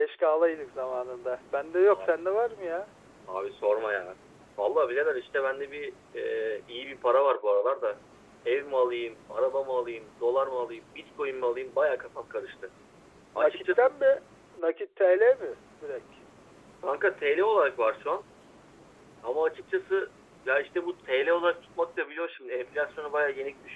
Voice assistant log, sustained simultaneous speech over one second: none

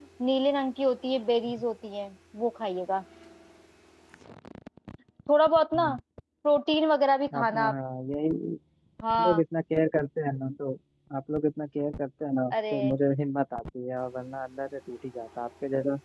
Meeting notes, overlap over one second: none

